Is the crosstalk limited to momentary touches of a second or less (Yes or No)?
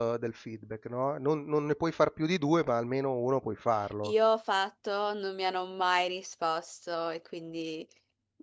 Yes